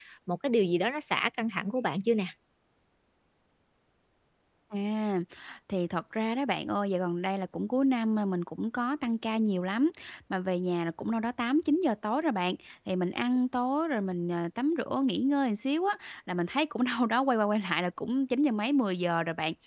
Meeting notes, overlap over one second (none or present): none